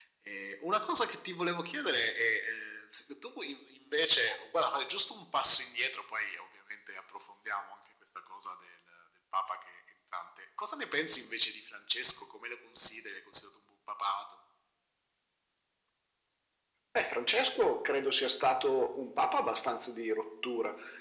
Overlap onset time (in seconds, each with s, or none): none